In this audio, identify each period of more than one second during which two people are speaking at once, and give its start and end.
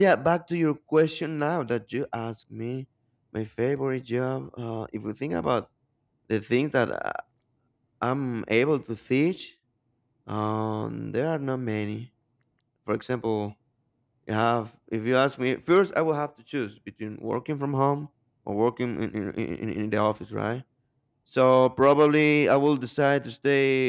none

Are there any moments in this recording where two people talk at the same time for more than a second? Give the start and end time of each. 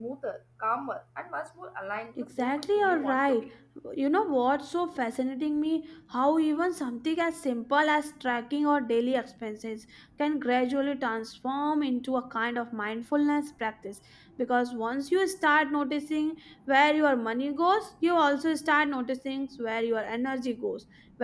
2.2-3.4

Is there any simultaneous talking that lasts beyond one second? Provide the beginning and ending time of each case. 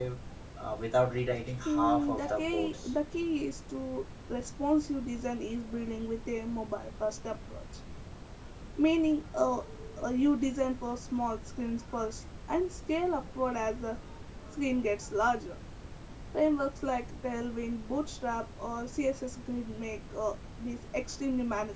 1.6-3.0

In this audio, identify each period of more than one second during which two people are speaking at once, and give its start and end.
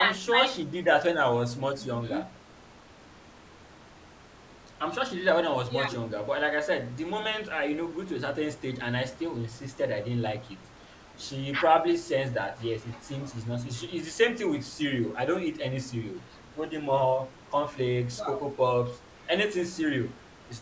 none

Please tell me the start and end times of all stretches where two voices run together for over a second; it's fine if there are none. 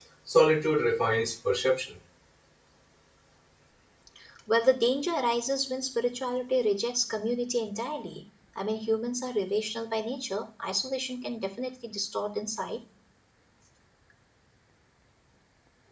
none

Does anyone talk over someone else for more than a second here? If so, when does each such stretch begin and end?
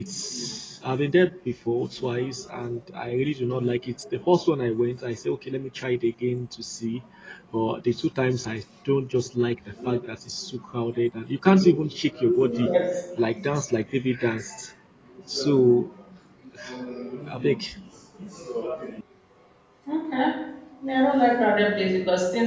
none

